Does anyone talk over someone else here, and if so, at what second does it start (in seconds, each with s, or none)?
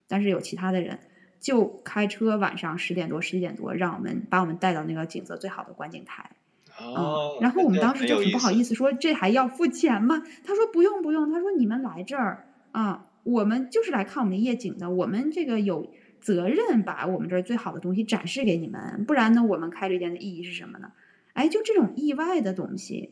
7.0 s